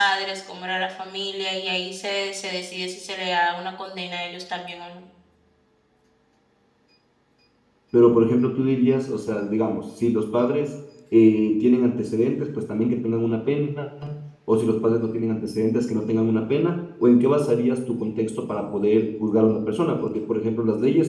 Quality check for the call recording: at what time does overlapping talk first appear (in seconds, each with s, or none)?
none